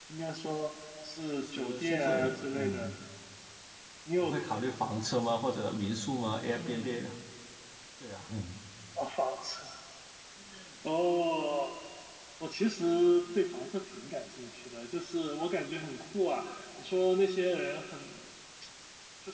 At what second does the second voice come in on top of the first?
1.4 s

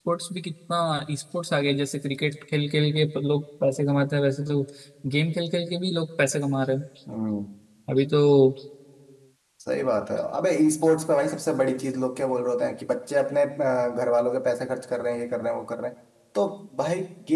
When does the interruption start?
none

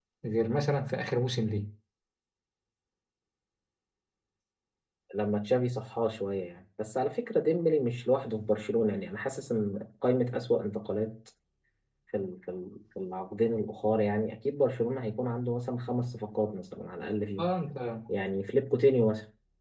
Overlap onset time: none

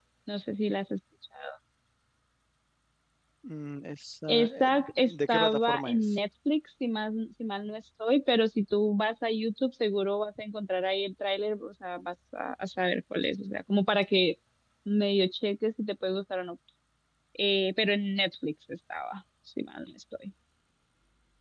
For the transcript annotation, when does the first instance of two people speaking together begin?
4.3 s

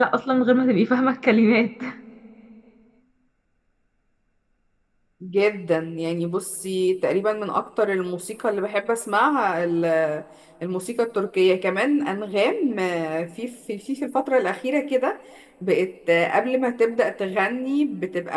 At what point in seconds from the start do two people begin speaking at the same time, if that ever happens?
none

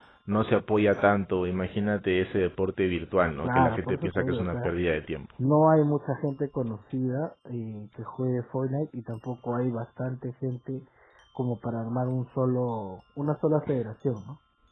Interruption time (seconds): 3.4 s

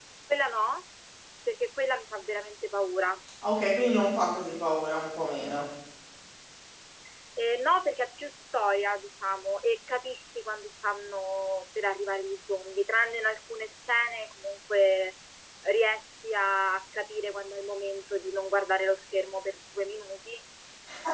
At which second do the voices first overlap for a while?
none

